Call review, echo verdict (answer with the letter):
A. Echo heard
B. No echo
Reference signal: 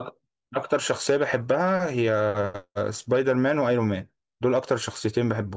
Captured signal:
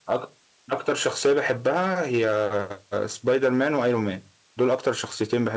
A